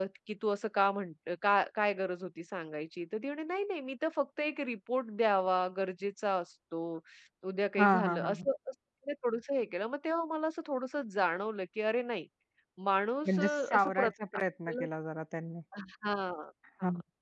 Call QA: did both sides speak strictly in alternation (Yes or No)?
No